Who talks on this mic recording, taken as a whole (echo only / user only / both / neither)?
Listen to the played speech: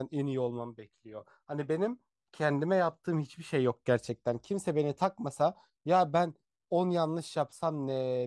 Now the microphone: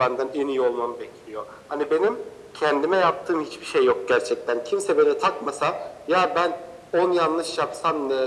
echo only